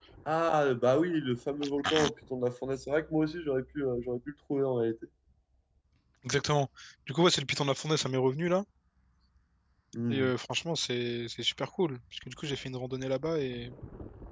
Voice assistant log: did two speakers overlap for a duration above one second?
No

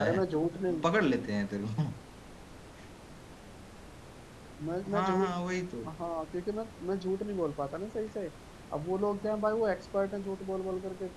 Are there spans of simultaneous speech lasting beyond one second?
No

